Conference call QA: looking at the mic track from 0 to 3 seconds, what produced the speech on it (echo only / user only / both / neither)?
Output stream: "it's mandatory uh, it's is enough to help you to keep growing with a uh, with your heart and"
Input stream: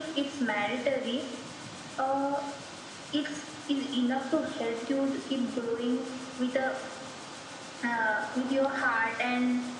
echo only